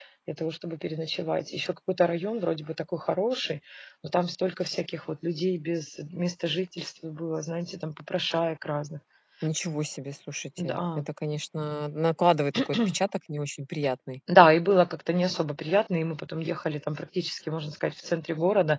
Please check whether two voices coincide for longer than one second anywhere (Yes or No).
No